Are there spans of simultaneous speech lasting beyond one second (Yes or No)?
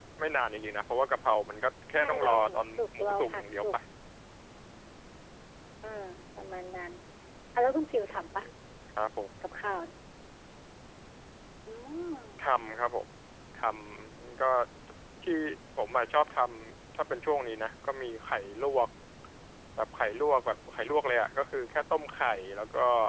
Yes